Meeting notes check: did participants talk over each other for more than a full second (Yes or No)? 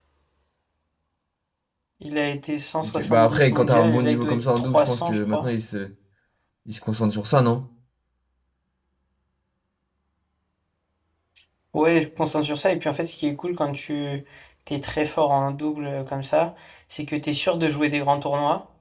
Yes